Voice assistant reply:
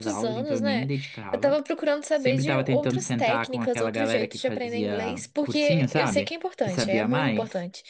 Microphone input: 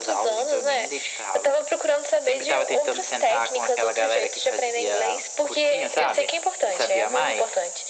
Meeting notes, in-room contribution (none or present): none